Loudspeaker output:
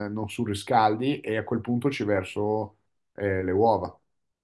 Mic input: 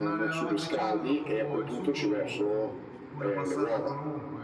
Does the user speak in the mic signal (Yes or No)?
Yes